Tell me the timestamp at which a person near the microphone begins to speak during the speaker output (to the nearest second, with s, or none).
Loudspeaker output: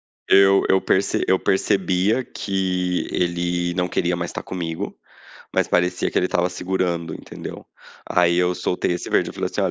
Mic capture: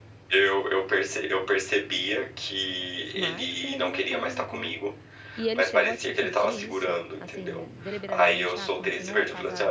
3 s